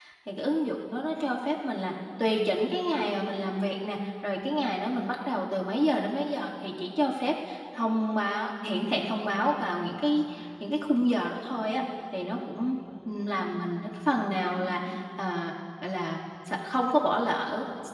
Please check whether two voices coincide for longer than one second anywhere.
No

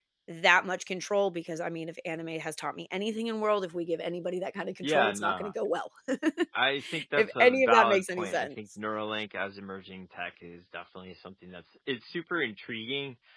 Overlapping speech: Yes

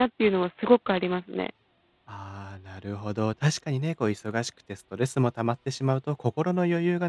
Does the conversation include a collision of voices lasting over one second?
No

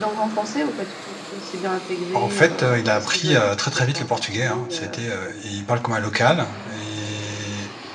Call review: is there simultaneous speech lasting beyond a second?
Yes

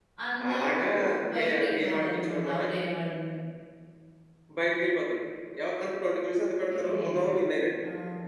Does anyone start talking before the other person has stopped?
Yes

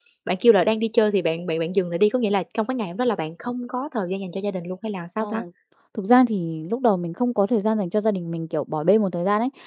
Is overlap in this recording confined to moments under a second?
Yes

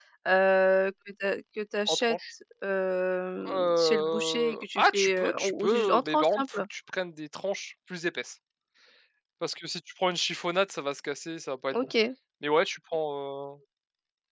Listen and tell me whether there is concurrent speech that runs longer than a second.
Yes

